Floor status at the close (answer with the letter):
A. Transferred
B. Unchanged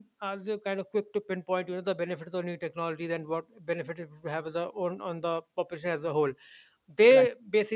B